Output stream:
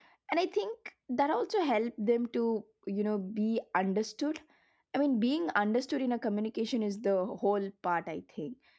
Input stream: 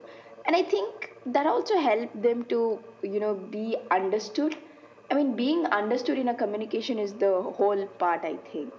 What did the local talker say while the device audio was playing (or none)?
none